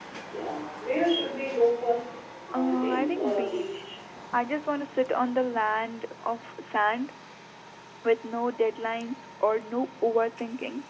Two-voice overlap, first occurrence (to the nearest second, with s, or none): 3 s